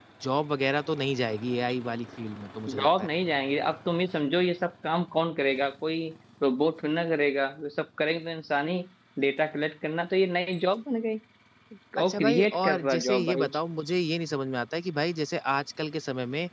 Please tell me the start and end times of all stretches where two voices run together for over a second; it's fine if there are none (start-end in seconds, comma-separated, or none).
12.0-13.5